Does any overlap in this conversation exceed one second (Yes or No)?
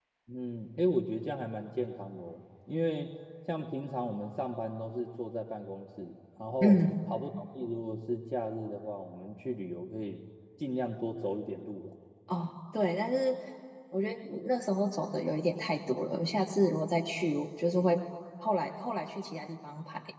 No